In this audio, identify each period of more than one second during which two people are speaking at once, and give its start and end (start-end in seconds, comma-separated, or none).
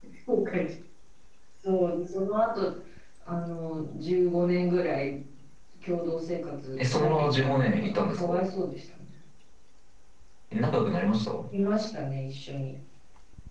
6.8-8.4